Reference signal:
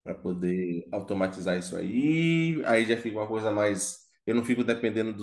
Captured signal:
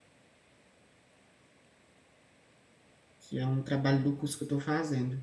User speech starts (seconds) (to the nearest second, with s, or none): 3 s